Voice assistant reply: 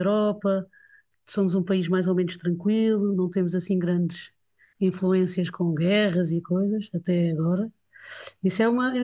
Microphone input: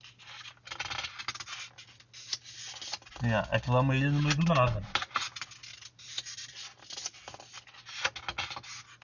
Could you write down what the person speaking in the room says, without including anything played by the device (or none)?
yeah, aquilo é uma ilha no meio do nada.